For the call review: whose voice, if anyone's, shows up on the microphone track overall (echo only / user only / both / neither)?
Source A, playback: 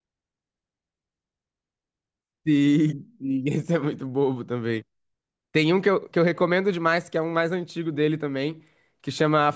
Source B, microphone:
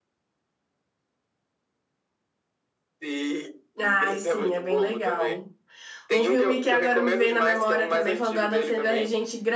both